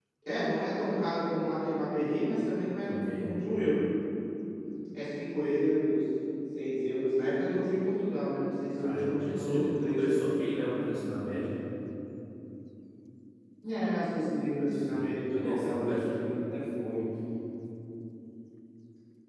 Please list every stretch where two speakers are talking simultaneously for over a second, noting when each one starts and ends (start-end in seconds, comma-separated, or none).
8.8-10.1, 14.7-16.0